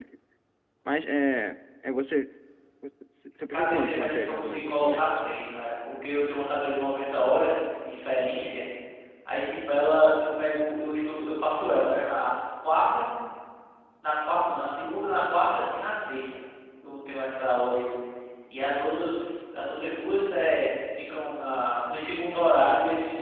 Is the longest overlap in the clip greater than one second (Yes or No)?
Yes